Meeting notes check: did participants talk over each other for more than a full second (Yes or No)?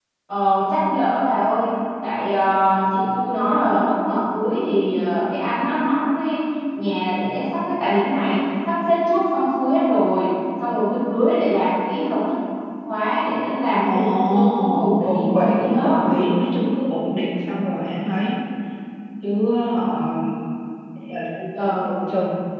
Yes